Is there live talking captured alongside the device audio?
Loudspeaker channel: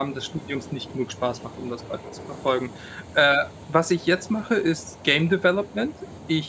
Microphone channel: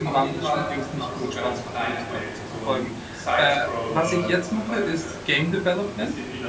Yes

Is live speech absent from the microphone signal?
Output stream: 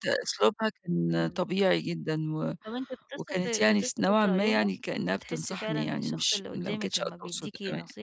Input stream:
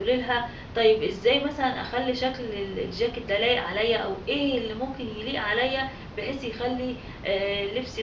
No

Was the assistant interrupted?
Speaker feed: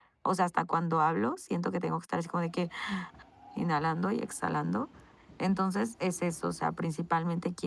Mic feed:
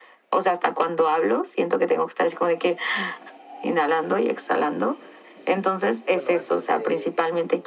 Yes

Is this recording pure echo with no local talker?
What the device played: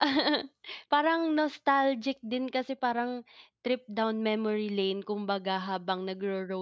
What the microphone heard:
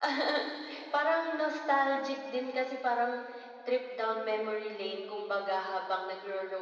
Yes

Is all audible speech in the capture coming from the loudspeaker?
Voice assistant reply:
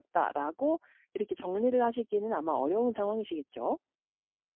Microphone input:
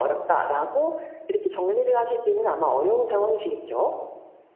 Yes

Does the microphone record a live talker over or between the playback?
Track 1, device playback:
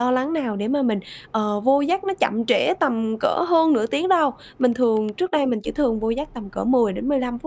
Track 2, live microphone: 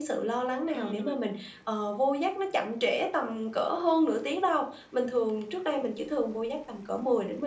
Yes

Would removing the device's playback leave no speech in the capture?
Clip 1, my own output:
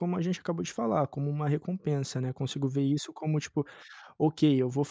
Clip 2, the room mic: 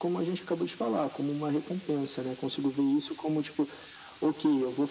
Yes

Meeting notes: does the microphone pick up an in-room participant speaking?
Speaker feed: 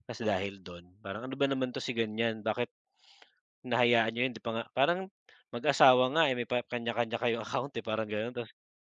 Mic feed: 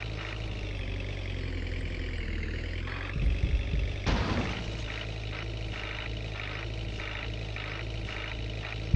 No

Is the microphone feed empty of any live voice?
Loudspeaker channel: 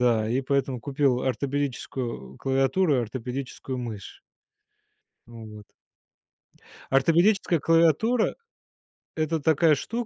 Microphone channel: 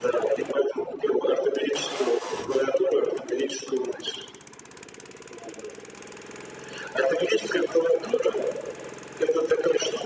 Yes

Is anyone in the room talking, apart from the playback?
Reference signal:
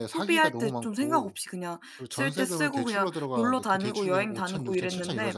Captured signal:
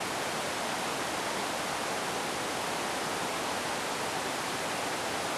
No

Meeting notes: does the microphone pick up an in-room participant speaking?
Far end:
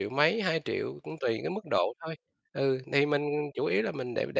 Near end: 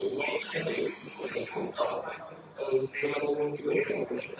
No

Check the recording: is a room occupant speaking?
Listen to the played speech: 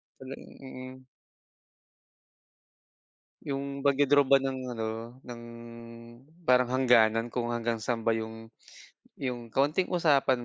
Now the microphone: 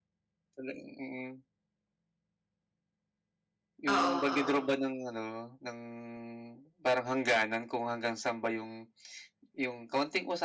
Yes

